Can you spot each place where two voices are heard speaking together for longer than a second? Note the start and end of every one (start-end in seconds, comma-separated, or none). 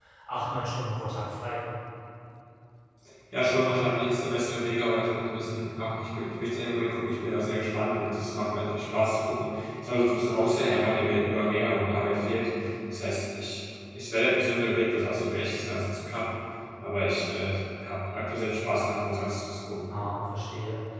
none